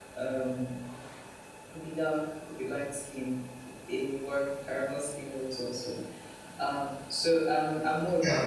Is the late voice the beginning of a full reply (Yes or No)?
Yes